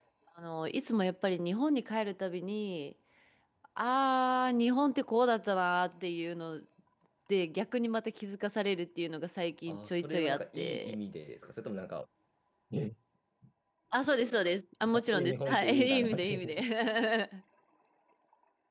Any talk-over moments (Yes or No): Yes